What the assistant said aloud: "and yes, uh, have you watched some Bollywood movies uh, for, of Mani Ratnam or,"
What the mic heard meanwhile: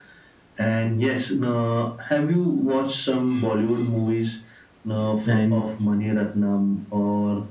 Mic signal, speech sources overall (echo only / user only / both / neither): both